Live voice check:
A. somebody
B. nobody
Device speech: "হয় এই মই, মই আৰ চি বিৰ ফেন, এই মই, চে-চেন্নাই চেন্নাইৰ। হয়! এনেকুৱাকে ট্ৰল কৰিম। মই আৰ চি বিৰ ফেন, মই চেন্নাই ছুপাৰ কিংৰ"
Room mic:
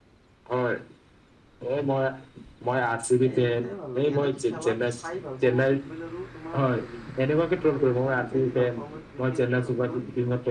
A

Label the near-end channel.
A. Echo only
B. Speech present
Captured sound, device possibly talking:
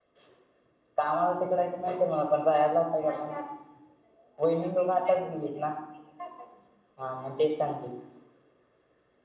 B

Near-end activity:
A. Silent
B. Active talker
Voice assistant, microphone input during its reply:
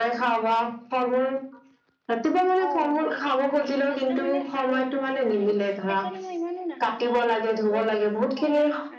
B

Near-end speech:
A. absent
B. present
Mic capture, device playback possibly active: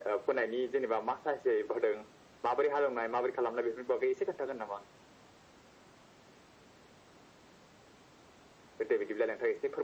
A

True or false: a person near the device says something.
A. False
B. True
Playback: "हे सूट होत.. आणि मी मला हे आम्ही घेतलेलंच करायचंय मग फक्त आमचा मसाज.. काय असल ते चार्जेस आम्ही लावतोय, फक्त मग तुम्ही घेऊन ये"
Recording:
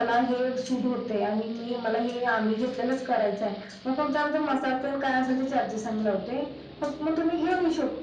A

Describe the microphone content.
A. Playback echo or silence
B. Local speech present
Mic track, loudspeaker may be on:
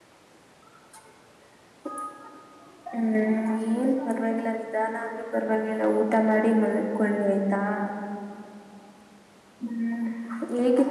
B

